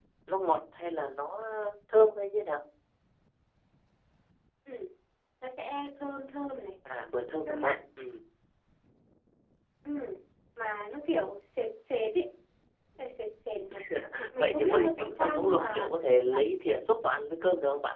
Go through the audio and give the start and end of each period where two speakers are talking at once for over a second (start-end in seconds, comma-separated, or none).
14.3-15.9